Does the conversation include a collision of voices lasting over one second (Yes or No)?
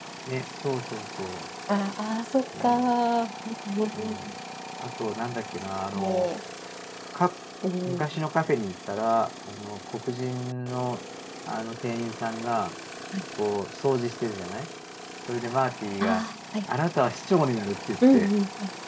No